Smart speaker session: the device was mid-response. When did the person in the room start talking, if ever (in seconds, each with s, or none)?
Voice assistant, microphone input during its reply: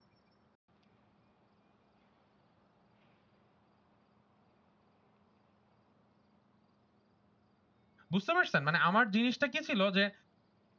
8.1 s